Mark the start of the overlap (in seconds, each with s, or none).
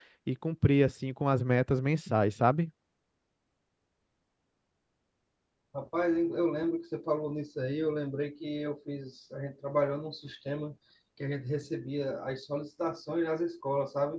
none